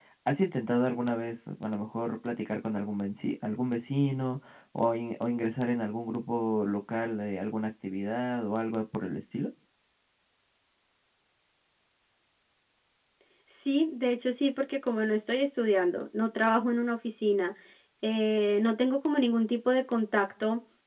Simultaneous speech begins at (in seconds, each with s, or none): none